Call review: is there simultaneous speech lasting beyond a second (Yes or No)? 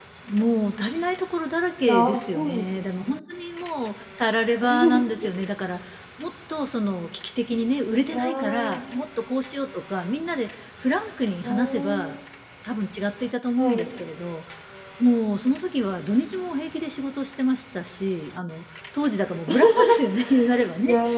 Yes